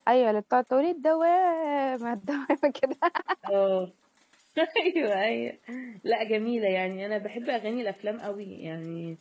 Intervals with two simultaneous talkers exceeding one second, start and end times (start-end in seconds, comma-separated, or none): none